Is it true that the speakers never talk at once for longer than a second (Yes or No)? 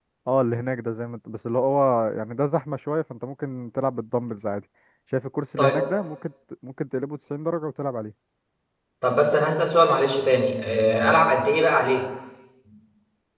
Yes